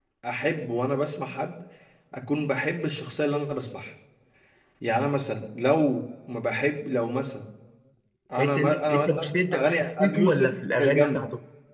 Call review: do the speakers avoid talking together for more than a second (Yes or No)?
No